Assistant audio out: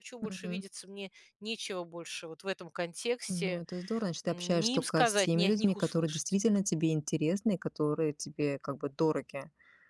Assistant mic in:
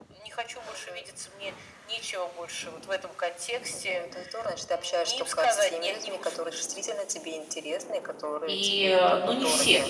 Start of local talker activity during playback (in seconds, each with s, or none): 8.4 s